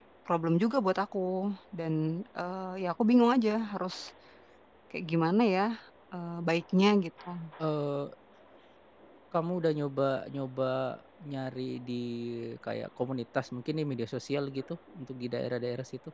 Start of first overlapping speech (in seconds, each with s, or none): none